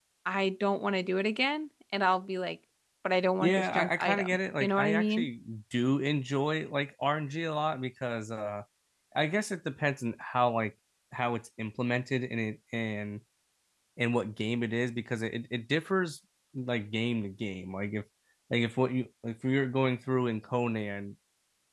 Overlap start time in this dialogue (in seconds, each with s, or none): 3.4 s